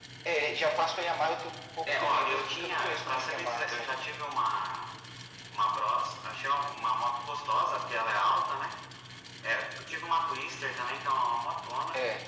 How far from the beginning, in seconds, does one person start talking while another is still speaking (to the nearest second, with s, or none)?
2 s